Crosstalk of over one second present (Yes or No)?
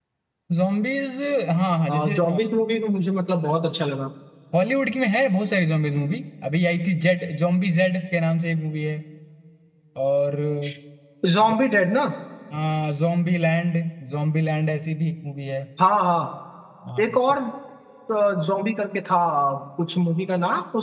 No